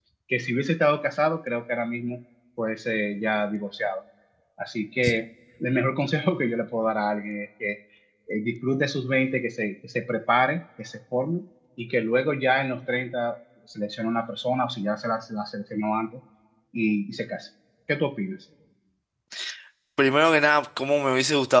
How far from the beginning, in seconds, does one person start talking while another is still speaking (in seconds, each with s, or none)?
none